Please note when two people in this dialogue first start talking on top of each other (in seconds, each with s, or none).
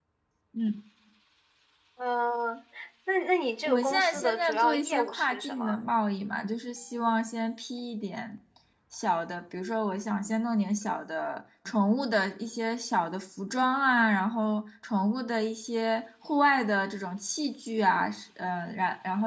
3.6 s